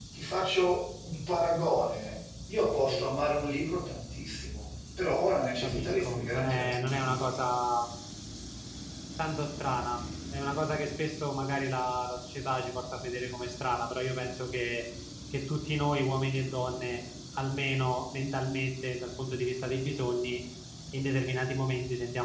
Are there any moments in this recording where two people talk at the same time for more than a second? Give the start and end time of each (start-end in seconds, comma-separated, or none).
5.6-7.4